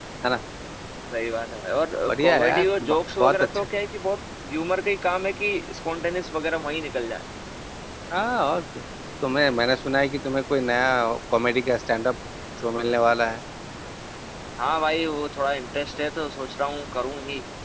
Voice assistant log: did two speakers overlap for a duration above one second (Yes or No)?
Yes